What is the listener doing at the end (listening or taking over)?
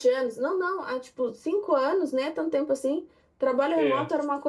listening